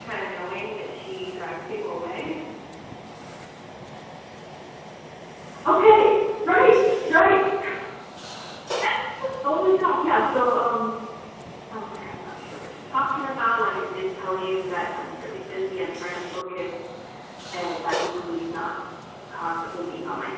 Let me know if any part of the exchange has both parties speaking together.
No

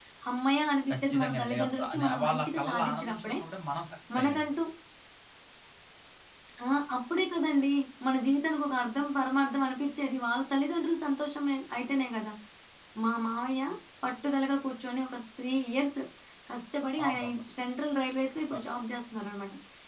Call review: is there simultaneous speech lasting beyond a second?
Yes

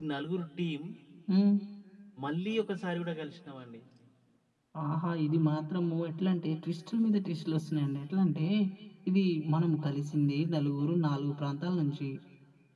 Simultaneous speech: No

